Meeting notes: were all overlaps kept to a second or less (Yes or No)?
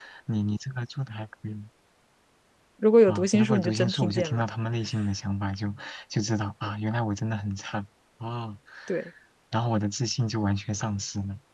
No